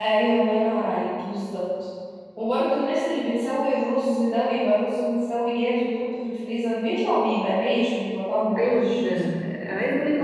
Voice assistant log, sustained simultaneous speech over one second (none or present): none